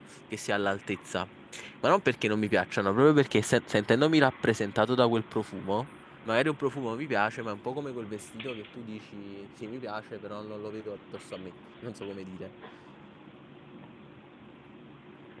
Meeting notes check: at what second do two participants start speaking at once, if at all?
none

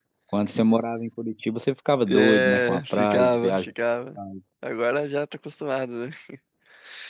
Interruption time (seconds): 2.1 s

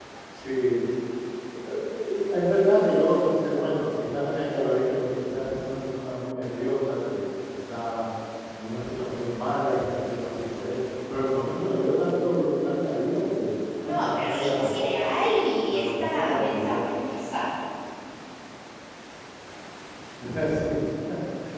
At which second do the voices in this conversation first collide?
13.9 s

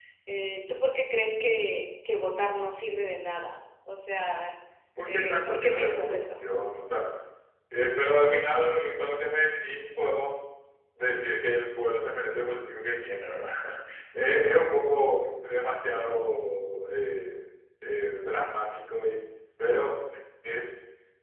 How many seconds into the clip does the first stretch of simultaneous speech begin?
5.0 s

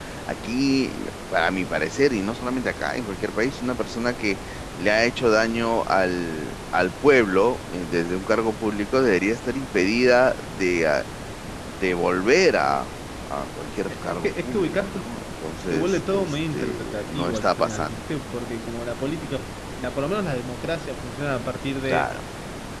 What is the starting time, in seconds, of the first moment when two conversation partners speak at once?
13.9 s

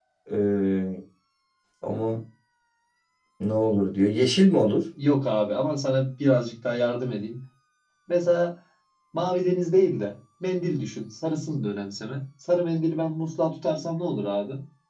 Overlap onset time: none

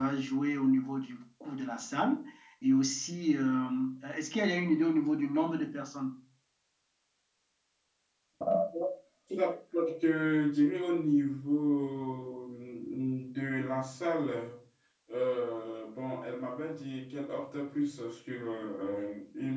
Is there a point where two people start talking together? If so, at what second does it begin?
none

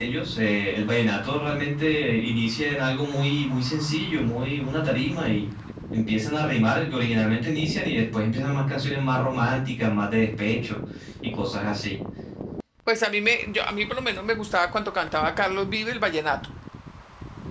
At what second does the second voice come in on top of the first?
none

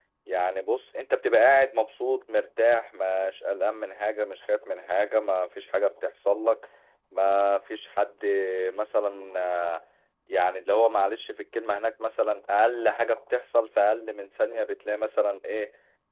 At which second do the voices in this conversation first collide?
none

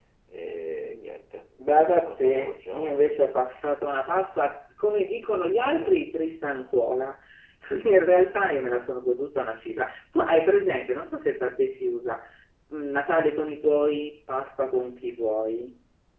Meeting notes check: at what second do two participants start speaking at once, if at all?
1.6 s

